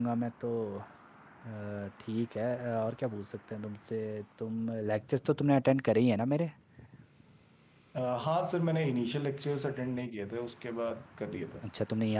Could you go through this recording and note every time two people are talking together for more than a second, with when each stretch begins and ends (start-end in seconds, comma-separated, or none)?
none